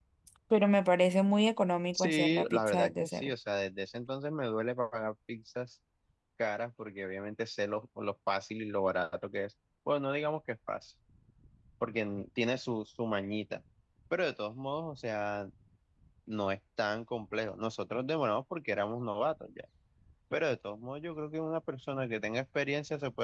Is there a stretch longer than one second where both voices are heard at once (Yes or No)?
Yes